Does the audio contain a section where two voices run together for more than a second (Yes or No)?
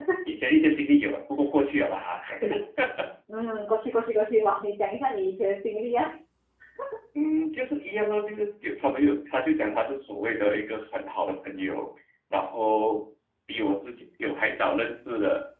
No